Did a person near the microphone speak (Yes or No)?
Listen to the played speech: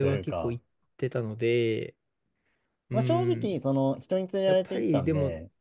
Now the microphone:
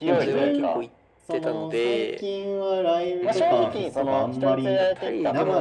Yes